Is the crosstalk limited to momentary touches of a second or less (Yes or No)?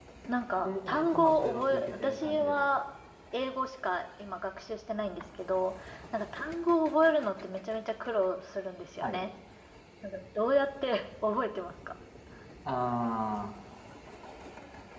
No